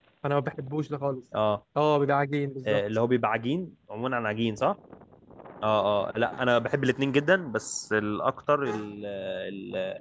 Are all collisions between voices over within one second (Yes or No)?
Yes